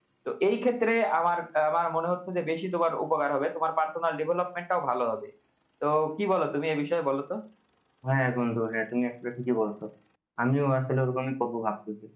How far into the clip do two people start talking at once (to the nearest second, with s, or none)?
none